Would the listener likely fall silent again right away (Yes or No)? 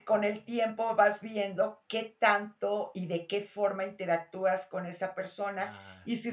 Yes